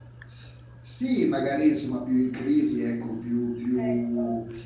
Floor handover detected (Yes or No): No